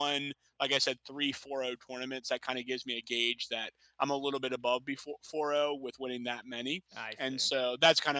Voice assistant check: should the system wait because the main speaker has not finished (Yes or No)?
Yes